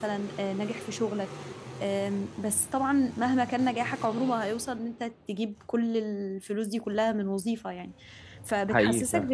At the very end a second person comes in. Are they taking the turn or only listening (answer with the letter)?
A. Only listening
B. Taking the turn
A